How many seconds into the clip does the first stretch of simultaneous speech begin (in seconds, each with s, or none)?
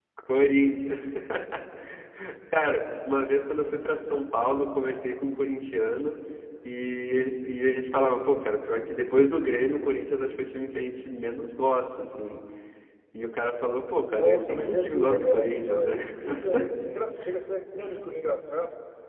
14.1 s